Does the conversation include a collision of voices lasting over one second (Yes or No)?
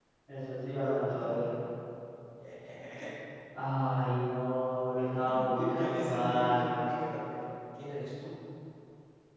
Yes